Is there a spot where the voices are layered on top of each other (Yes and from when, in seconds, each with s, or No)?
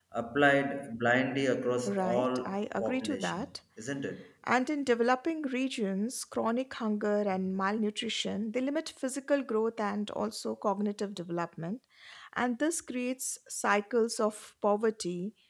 Yes, from 1.9 s